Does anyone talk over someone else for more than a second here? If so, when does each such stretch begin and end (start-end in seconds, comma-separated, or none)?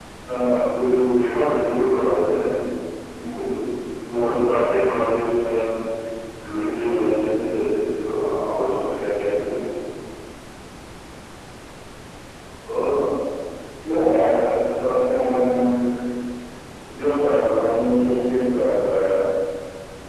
none